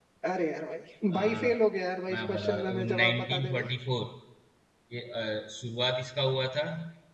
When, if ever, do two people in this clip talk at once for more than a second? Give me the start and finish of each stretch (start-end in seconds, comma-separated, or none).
2.1-3.7